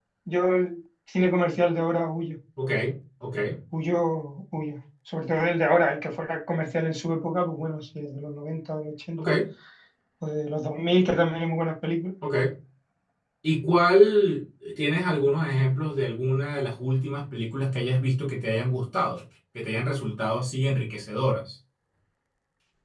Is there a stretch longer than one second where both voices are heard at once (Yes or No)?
No